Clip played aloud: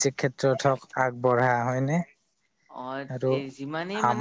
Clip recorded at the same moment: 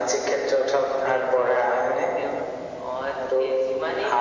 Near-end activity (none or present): present